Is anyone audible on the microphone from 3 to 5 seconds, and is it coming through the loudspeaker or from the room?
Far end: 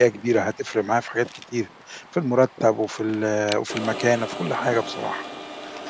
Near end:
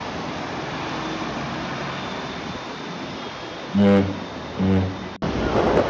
user only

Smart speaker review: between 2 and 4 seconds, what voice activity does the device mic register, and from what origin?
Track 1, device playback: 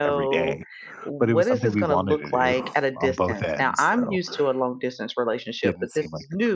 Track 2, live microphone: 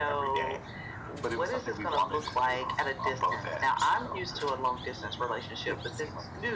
echo only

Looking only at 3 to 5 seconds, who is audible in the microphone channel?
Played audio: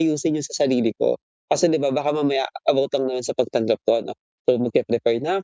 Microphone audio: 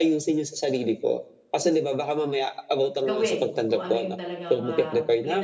both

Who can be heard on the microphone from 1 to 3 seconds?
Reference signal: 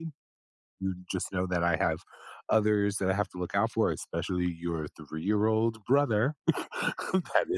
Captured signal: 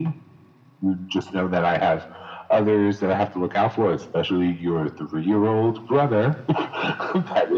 echo only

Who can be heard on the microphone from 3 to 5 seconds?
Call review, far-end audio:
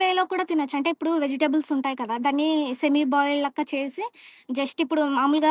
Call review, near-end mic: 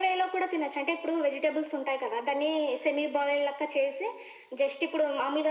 echo only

